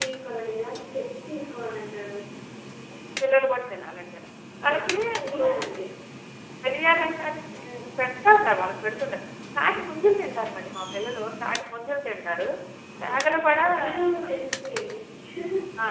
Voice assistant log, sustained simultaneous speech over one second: present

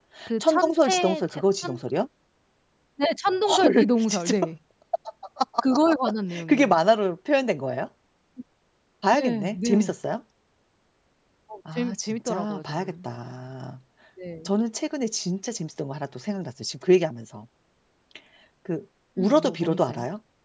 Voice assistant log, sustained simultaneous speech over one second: present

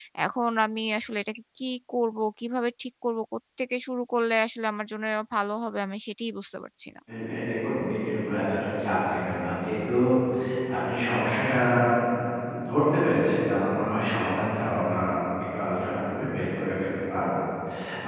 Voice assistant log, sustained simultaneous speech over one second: none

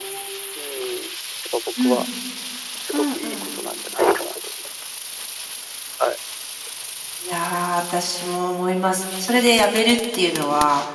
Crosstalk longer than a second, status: none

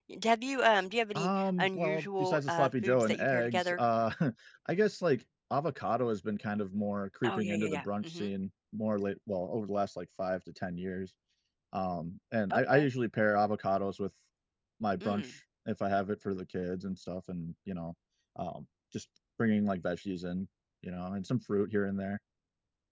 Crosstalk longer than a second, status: present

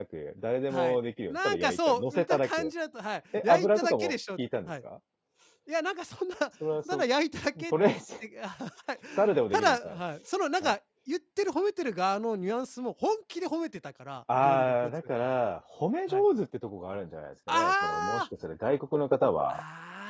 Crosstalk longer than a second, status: present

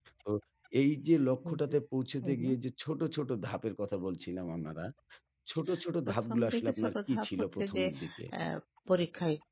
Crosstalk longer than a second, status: present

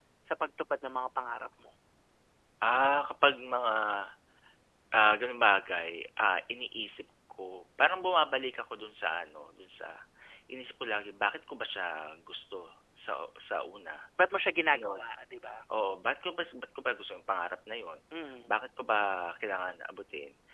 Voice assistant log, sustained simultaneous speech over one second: none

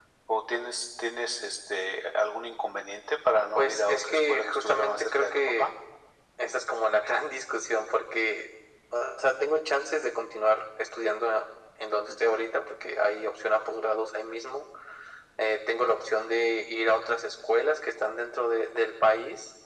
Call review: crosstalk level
present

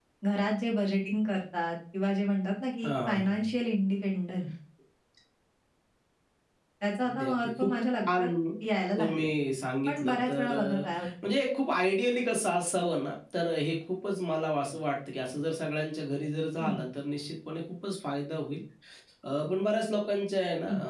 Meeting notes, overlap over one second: present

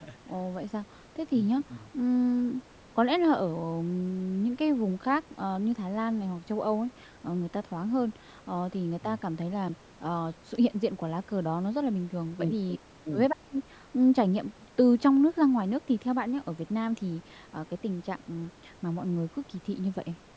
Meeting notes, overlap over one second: none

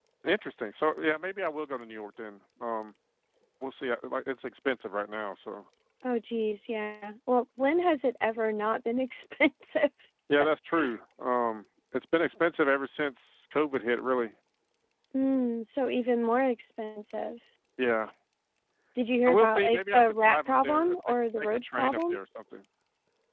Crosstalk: present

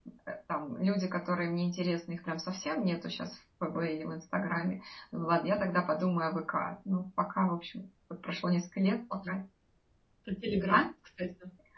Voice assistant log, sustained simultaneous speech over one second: none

